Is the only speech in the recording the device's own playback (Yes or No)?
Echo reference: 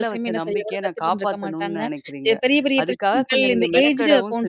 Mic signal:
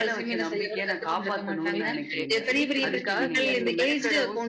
No